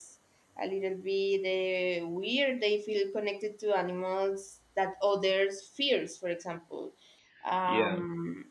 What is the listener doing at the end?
listening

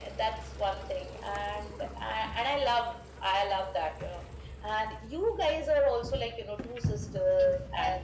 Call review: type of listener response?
taking over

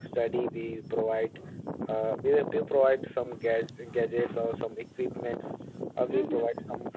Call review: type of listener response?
listening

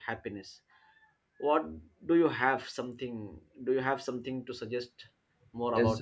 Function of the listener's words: taking over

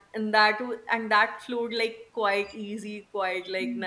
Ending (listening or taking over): taking over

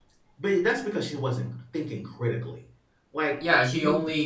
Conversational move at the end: taking over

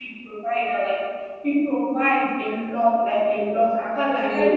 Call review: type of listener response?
listening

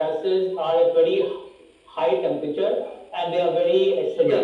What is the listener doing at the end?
listening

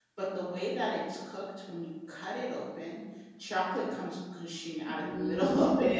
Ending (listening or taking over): taking over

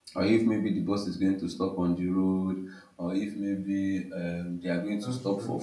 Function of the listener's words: listening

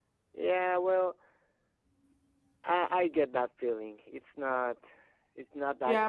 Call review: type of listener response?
taking over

